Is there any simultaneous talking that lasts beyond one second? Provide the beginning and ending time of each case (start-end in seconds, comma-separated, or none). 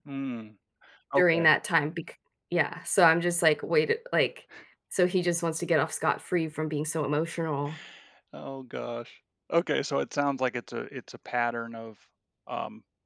none